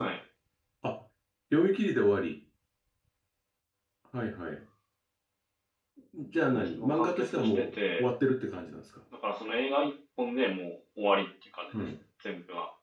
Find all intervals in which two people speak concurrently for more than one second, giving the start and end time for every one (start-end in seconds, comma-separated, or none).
6.5-8.1